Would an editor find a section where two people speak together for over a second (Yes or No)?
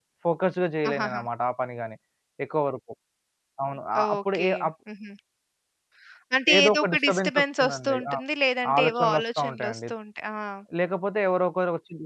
Yes